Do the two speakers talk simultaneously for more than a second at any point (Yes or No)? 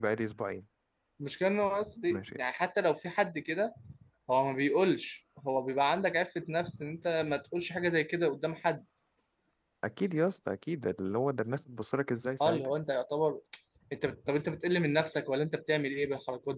No